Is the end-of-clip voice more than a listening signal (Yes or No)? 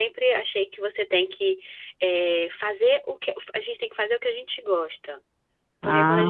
No